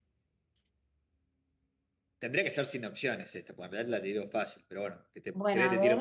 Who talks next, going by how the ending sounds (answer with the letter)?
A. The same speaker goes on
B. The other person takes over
B